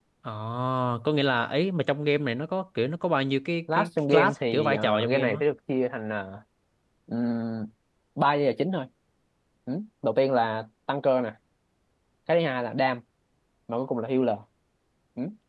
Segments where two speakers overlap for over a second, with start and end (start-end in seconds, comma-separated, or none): 3.7-5.4